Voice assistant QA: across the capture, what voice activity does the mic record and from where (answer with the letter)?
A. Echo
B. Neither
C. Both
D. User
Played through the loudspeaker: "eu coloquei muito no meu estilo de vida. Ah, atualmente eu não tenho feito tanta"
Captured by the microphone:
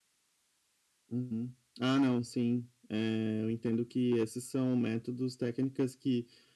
D